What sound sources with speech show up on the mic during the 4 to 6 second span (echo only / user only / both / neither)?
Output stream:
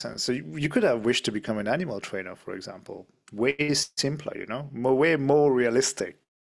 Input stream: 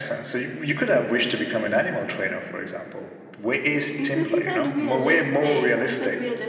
both